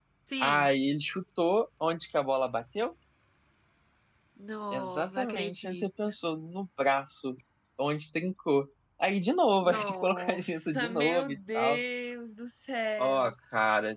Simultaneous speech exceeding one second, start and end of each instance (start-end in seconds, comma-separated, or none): 4.7-6.1, 9.6-11.8